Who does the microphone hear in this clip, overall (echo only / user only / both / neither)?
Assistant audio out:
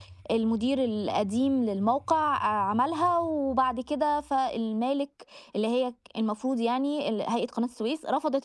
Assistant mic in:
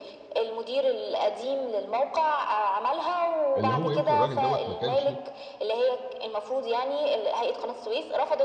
both